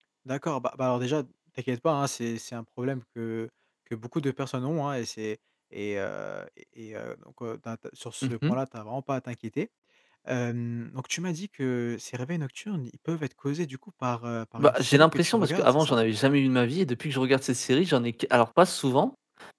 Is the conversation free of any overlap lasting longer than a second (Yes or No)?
No